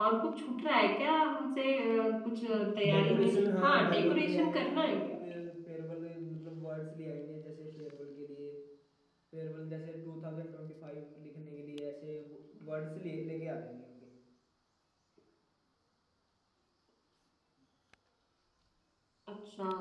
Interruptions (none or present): present